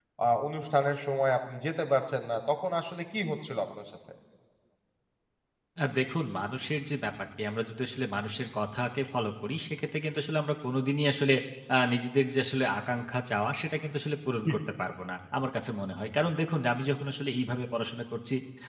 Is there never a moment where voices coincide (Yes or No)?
Yes